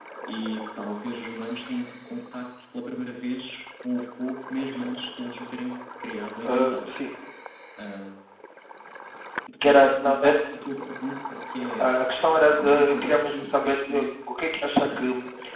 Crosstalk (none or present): present